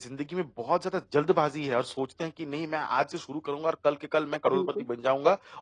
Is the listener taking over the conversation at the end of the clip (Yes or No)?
No